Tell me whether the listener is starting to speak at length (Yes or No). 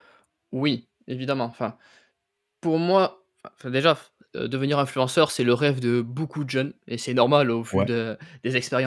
No